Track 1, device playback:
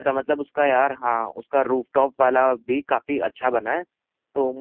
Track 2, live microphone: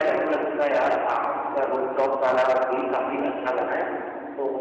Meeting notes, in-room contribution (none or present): none